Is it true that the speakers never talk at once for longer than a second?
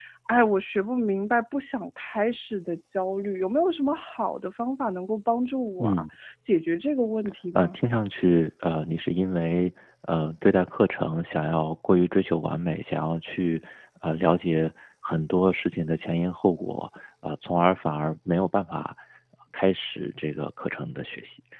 Yes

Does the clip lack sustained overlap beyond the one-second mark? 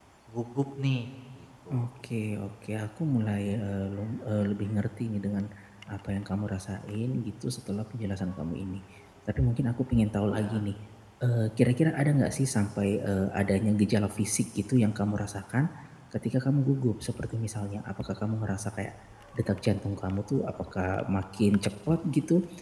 Yes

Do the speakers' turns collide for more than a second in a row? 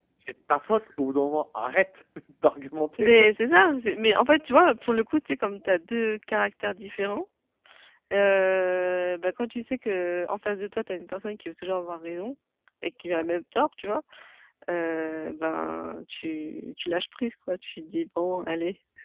No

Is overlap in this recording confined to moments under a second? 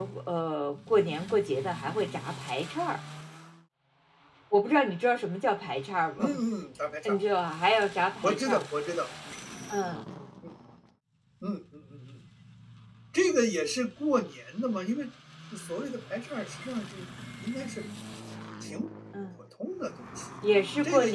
Yes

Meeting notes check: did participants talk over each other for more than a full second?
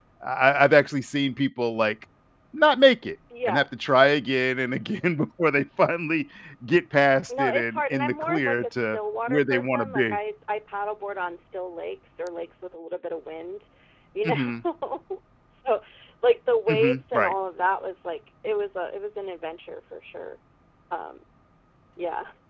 Yes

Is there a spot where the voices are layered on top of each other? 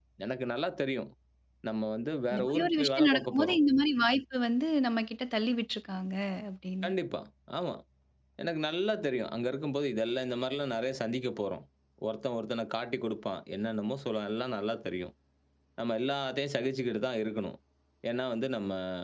Yes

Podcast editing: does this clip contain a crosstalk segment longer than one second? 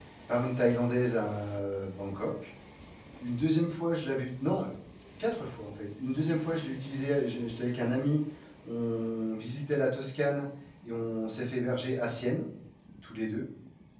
No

